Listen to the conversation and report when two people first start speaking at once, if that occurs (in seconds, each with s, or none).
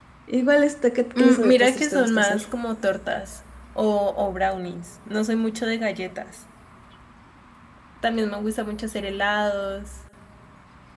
1.2 s